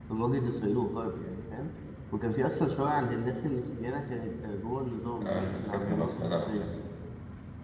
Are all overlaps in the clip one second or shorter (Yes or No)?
No